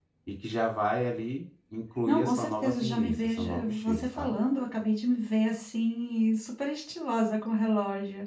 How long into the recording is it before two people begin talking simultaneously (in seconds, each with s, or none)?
2.1 s